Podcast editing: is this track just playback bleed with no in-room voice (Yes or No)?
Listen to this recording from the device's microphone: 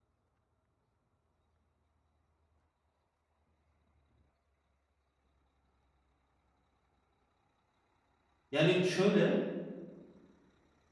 No